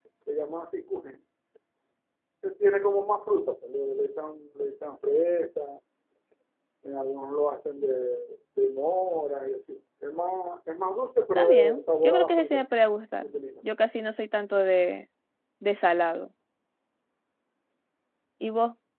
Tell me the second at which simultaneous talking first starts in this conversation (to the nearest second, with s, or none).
11 s